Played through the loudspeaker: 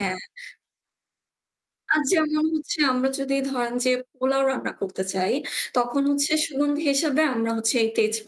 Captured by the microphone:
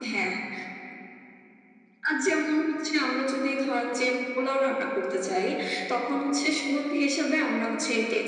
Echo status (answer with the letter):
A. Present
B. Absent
A